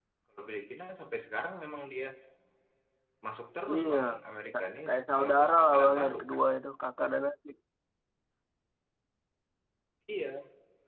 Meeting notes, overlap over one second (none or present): present